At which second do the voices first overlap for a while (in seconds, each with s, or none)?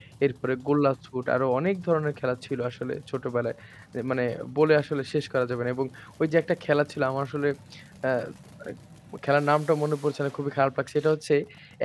none